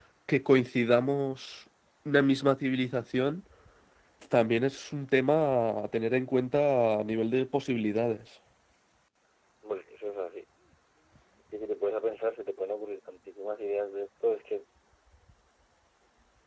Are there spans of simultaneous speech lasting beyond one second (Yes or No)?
No